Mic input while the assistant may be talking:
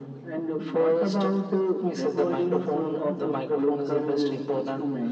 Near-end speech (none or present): none